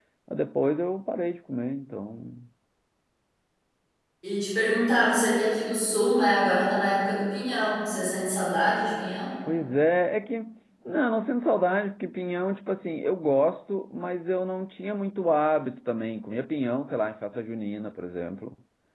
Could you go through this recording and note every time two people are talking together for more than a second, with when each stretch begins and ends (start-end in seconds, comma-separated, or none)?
none